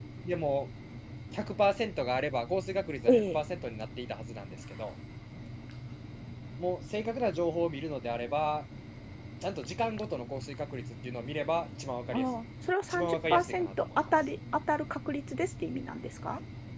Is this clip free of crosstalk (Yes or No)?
No